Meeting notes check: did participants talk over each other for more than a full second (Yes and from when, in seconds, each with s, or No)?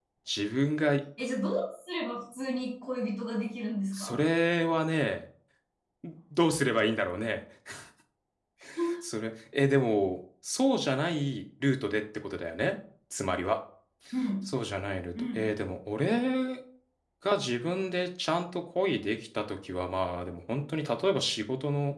No